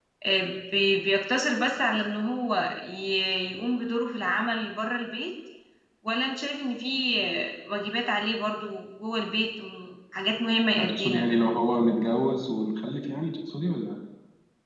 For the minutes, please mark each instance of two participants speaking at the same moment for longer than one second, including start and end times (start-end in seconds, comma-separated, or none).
none